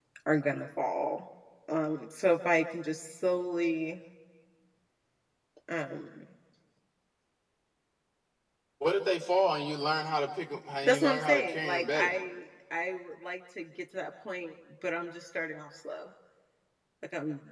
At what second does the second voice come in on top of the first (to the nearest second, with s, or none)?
11 s